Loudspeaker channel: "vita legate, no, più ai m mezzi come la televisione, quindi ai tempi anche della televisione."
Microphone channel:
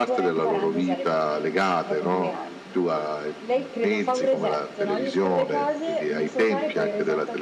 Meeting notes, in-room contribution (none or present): present